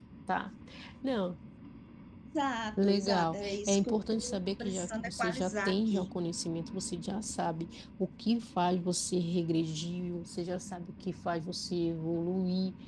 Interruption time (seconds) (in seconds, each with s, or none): 2.8 s